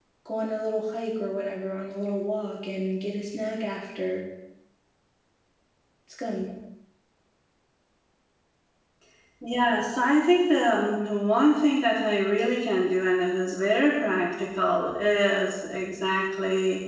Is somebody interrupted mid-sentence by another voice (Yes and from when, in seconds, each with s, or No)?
No